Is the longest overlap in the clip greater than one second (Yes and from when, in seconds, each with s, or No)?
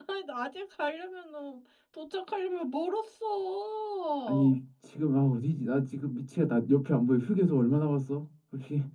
No